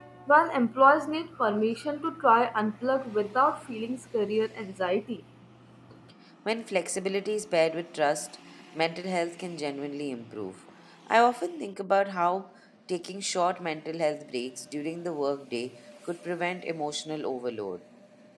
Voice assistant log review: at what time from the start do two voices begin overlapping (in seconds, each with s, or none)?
none